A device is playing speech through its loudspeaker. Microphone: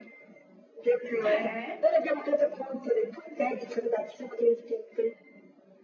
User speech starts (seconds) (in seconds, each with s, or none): 1.2 s